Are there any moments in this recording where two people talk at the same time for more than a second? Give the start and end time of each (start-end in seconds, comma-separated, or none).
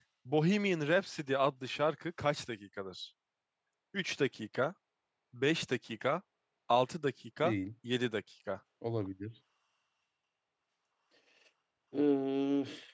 none